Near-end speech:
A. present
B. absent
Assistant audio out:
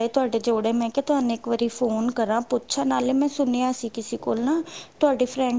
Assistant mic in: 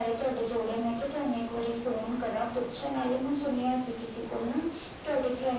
B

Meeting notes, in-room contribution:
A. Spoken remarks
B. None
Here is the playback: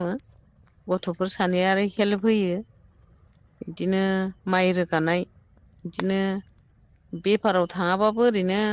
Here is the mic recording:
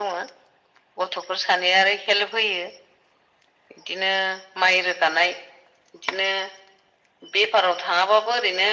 B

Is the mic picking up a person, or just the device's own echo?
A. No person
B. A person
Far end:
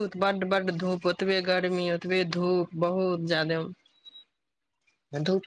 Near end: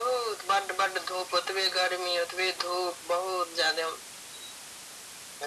A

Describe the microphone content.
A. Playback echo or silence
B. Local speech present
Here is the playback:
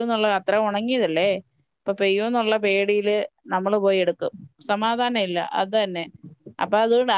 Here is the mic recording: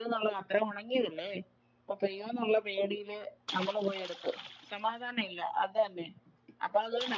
A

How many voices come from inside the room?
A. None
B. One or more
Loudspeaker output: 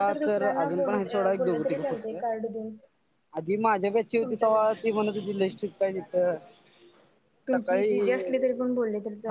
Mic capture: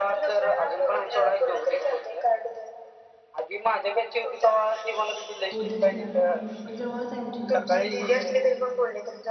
B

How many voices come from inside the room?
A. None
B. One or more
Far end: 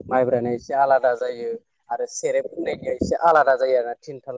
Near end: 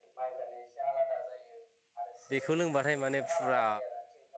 B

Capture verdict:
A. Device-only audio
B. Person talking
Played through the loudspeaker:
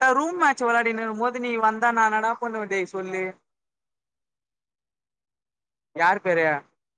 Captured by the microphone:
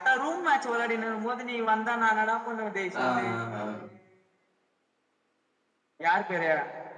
B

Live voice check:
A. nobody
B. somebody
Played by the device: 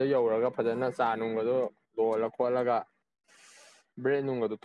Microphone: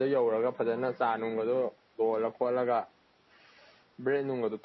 A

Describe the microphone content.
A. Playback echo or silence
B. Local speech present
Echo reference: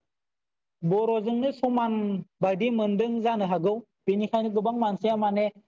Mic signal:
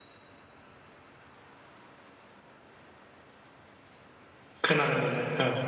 B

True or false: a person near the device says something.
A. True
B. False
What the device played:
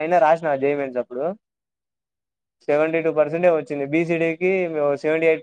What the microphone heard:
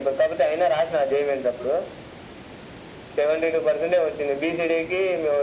B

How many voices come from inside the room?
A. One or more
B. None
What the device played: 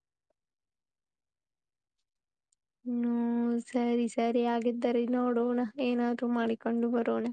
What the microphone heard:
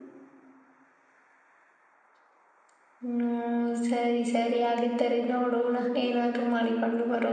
B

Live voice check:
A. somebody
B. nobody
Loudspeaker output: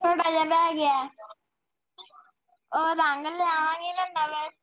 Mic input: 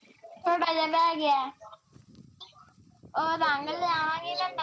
A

